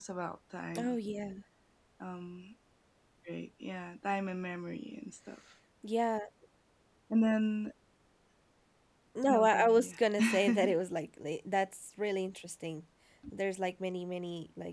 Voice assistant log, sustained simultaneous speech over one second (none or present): present